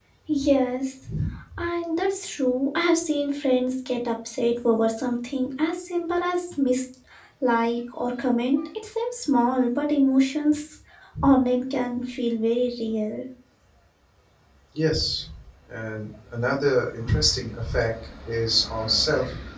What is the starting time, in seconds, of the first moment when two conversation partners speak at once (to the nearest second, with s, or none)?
none